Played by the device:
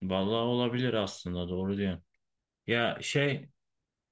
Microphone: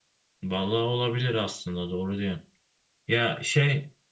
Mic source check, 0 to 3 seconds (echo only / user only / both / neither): echo only